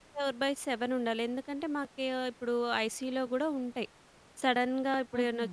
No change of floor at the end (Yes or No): Yes